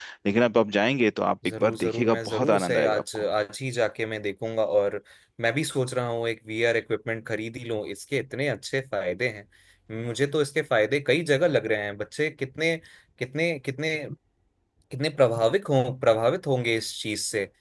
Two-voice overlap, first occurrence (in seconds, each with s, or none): 1.4 s